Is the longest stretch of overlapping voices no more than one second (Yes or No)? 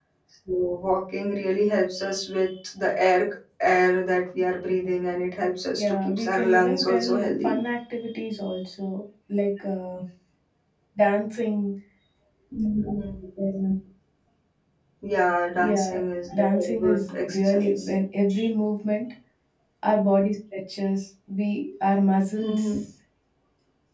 No